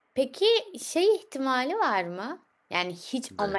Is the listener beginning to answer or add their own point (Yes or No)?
No